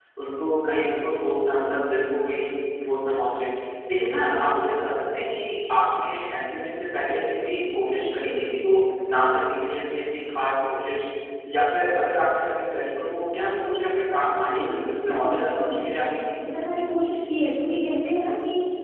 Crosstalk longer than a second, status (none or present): present